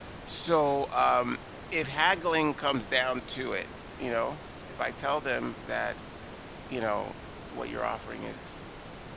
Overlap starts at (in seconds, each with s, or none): none